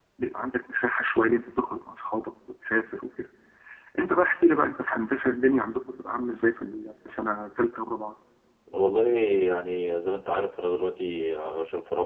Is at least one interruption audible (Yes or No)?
No